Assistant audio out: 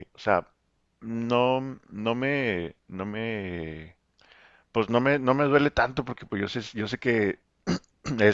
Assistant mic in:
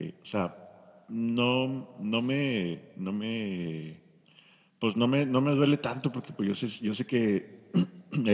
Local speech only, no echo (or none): none